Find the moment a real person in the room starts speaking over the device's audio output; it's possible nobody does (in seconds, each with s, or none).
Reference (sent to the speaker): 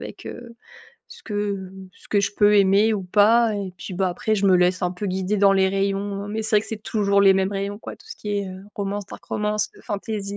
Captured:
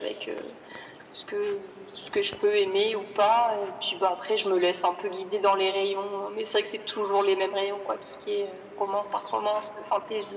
none